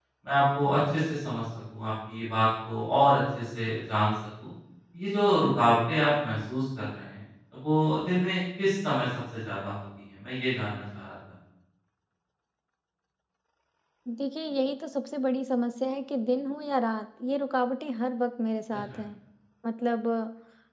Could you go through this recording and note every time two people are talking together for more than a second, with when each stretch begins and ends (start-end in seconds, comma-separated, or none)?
none